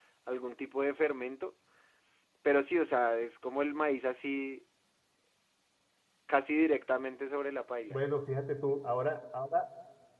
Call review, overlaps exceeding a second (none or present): none